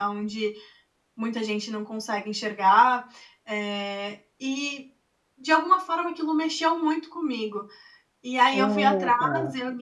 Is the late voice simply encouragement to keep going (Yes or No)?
Yes